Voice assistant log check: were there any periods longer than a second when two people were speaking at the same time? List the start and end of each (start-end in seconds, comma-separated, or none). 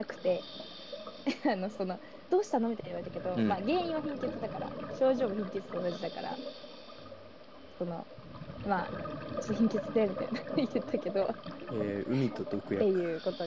none